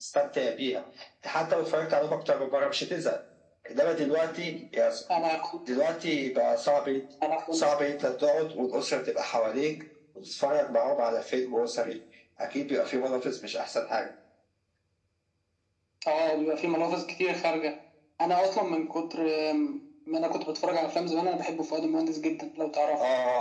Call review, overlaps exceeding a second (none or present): none